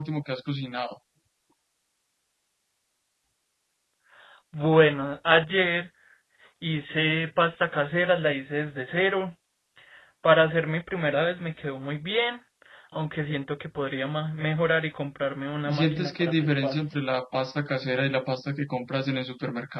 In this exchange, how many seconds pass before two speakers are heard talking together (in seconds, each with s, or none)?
15.6 s